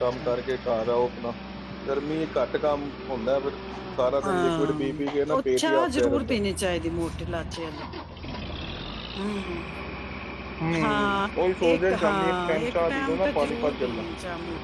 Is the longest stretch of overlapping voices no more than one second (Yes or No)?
No